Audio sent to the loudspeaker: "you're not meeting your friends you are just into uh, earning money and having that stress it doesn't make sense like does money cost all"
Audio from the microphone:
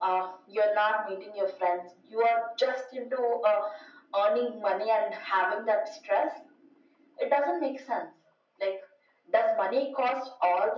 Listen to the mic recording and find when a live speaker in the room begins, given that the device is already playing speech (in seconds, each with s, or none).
none